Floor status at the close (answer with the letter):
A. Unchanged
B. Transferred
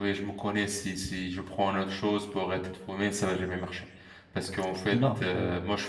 A